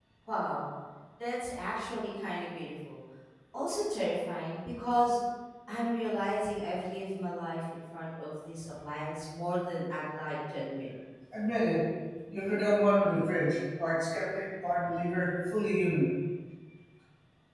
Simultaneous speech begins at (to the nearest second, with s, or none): none